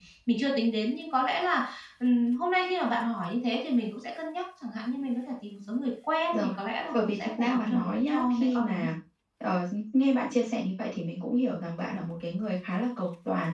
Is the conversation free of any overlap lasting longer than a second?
No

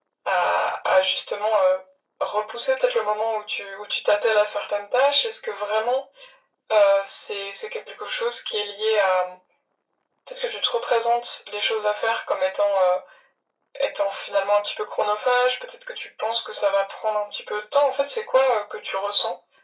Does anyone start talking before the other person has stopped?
No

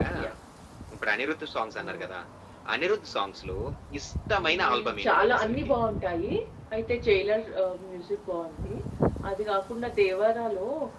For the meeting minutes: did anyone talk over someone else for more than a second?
Yes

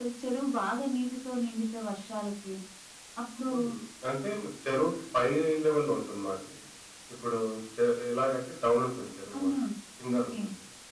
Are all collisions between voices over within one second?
Yes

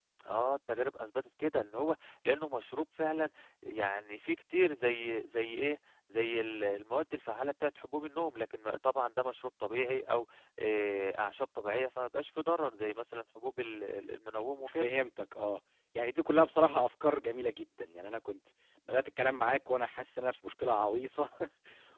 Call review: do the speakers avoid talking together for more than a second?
Yes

